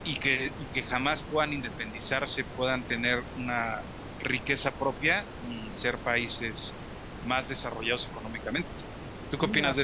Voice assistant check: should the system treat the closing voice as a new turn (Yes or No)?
Yes